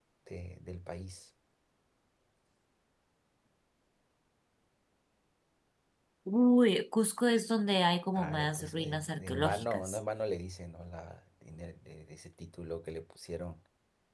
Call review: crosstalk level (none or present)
present